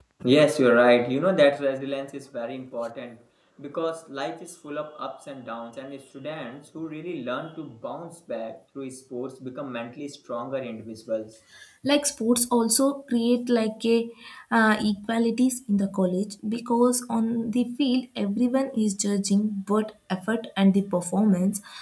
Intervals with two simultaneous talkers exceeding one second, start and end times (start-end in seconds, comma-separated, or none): none